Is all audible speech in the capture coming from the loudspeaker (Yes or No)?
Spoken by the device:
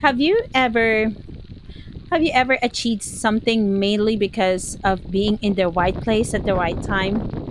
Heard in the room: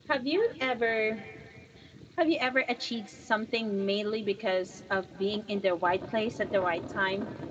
Yes